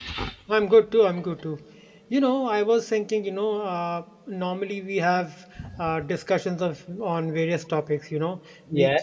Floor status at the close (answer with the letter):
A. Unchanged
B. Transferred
A